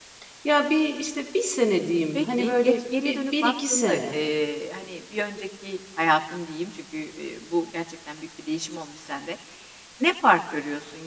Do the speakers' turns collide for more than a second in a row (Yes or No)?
Yes